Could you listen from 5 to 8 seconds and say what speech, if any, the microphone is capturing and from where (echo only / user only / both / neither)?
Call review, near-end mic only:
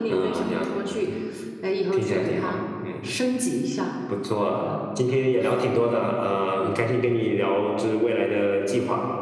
echo only